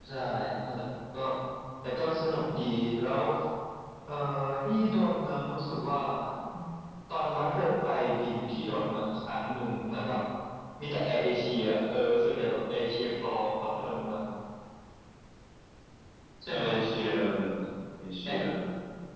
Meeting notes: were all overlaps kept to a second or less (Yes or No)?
Yes